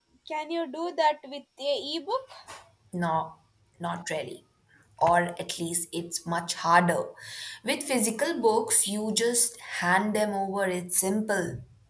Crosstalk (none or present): none